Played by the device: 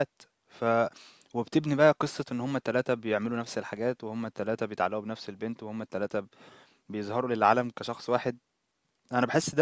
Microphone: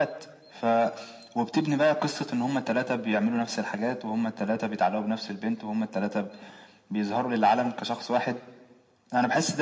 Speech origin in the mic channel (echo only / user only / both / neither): echo only